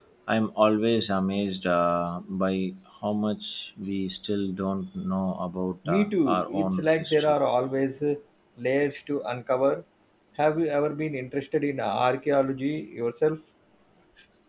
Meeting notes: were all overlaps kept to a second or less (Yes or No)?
No